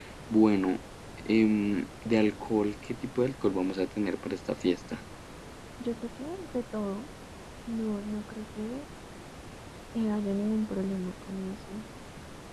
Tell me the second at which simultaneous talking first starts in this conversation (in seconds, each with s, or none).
none